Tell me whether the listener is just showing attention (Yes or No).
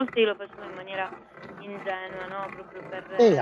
No